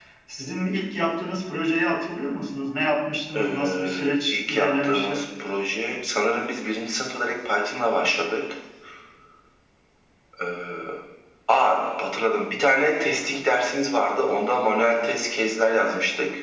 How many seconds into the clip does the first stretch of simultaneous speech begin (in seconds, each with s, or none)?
3.3 s